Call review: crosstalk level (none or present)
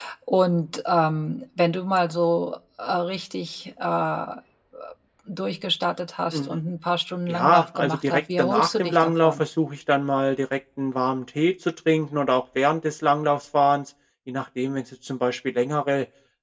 present